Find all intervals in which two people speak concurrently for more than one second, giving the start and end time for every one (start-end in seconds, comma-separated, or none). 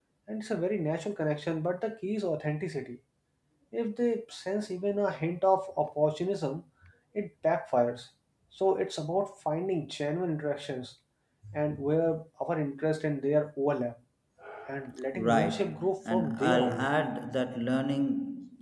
15.1-16.9